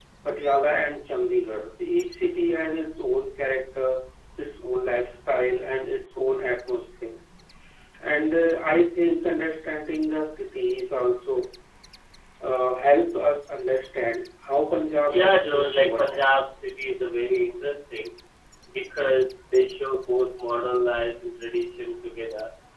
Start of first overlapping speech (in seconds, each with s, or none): 15.1 s